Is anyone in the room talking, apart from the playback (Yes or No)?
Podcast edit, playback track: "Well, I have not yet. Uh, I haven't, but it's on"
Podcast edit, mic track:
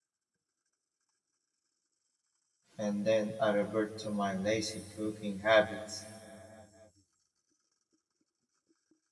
Yes